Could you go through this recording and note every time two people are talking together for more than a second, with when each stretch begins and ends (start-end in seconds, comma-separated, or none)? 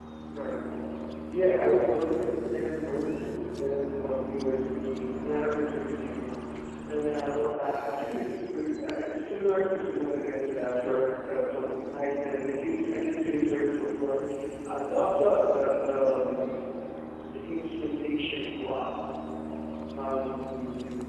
none